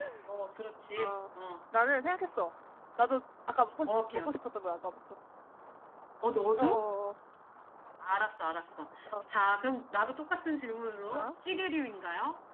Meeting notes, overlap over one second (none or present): none